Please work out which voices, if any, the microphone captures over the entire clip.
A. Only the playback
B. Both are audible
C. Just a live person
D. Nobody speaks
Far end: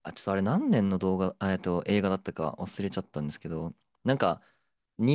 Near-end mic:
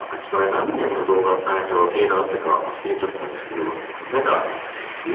A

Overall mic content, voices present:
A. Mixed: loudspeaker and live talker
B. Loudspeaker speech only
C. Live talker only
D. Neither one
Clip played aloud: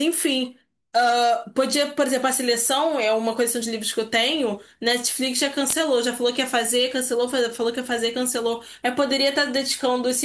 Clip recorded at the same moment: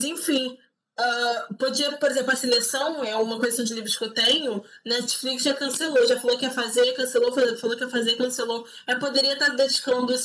B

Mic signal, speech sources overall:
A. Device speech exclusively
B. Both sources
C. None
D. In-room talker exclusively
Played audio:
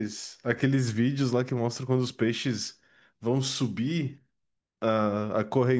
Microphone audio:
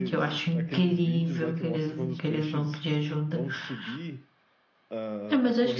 B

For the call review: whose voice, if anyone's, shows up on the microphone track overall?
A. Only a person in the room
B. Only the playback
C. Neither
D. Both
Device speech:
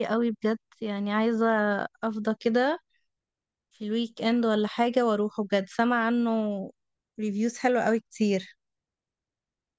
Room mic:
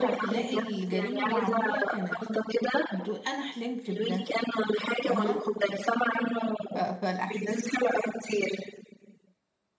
D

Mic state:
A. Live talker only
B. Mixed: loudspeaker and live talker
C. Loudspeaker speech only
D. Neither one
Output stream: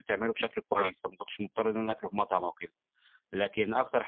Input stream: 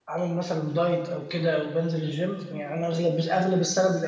A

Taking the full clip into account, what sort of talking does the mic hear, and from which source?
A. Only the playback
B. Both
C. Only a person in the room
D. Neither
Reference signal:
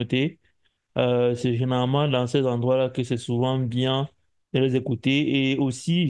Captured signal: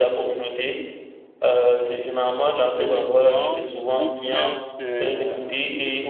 B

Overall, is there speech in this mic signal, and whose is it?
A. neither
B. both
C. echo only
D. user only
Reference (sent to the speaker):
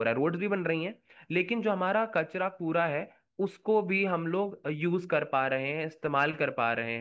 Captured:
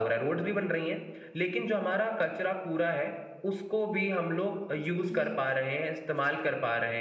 B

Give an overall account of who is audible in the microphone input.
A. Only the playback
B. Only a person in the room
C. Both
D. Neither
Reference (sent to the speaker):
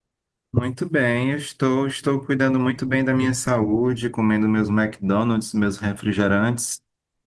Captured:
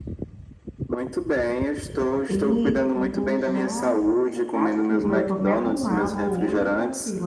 C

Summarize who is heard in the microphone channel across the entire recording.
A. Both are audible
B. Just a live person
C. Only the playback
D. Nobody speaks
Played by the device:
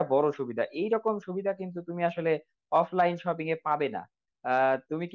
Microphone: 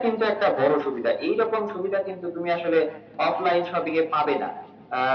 C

